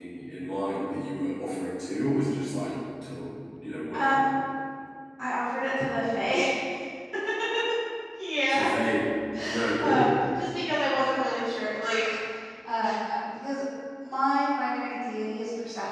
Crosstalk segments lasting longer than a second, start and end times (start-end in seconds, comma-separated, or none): none